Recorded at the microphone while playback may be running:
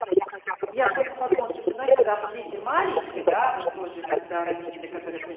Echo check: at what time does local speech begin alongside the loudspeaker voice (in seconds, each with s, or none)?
0.7 s